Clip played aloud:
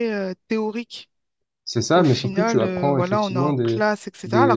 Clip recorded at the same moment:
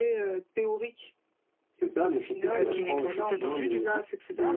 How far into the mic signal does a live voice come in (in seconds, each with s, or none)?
2.5 s